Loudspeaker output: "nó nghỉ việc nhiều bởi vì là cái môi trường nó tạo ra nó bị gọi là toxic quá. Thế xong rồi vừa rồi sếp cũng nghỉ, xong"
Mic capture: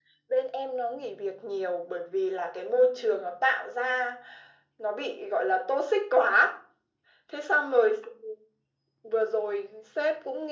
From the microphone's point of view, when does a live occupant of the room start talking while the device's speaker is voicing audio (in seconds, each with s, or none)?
none